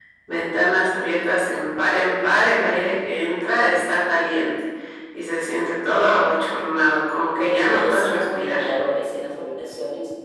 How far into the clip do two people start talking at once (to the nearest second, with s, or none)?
7 s